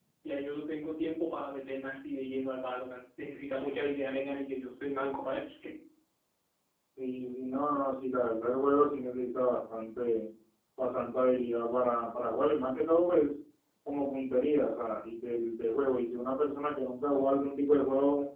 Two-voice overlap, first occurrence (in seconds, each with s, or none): none